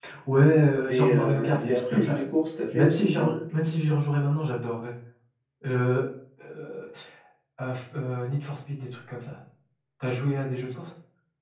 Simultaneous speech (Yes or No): Yes